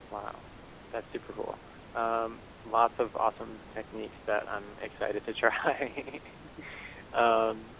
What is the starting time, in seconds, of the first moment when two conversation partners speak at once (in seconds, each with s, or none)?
none